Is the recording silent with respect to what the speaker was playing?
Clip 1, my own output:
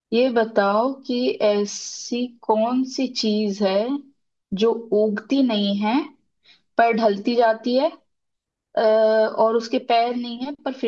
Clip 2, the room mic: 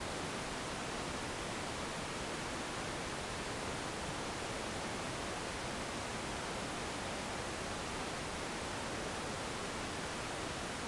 Yes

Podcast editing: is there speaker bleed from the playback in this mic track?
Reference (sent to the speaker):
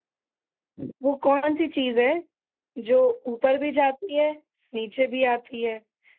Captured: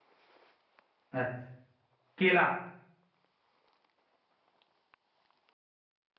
No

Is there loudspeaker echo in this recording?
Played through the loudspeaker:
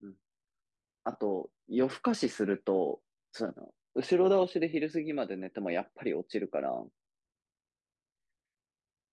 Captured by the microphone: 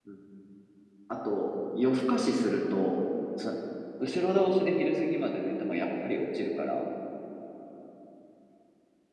Yes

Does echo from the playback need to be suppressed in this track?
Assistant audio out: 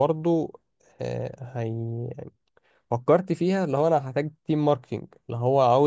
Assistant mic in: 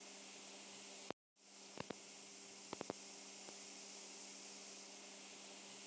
No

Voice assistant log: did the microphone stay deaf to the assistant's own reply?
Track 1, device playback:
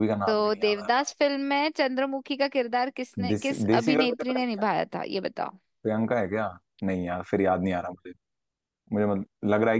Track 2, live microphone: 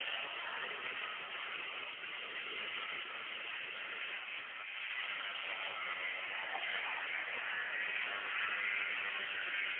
Yes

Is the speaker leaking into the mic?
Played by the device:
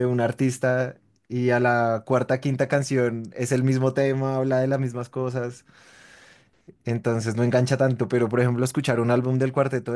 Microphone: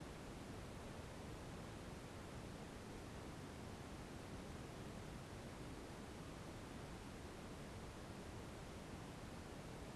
No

